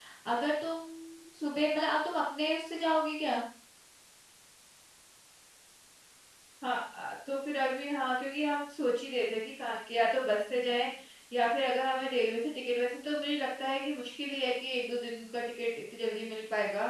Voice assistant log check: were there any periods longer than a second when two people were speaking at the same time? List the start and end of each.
none

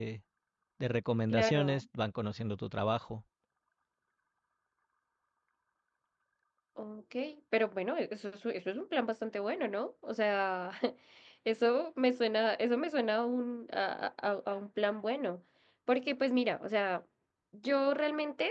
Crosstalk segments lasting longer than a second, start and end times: none

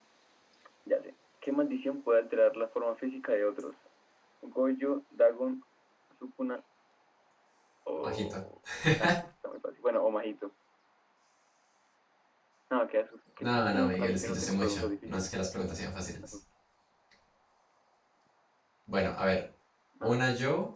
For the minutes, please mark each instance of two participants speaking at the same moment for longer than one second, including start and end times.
13.4-15.3

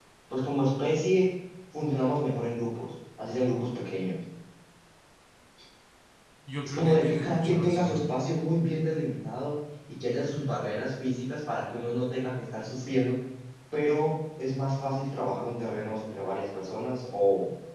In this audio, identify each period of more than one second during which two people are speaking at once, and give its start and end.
6.6-8.2

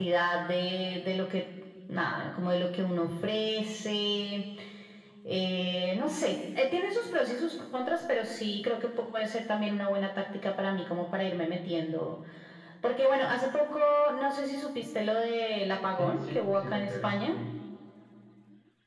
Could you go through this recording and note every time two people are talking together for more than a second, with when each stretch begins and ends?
16.0-17.4

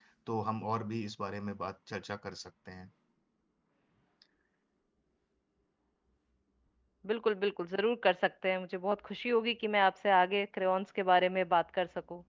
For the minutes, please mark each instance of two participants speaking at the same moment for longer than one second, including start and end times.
none

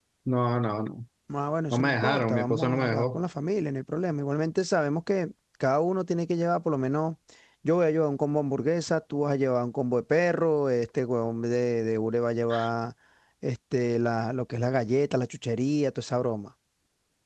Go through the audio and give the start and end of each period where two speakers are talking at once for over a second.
1.7-3.2

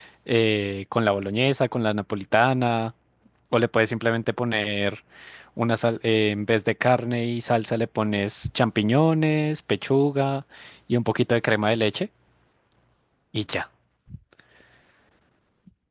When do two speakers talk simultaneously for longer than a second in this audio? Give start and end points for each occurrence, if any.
none

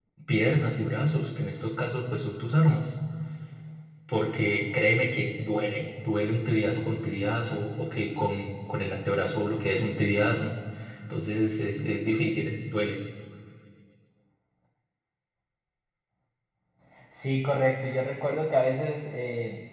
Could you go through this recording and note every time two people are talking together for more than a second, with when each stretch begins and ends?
none

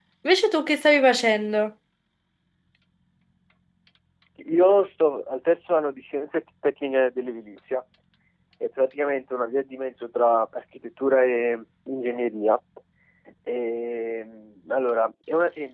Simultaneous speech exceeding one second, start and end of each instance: none

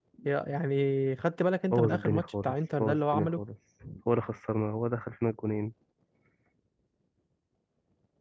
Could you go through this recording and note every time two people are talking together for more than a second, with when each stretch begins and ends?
1.7-3.4

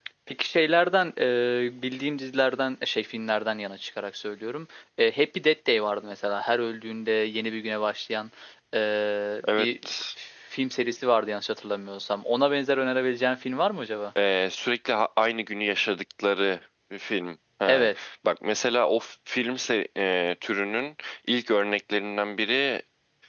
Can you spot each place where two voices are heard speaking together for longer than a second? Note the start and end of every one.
none

